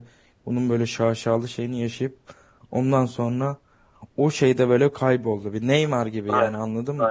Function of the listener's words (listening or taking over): taking over